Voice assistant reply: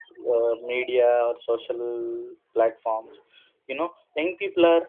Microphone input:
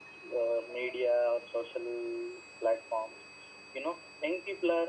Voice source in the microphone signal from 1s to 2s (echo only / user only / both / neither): echo only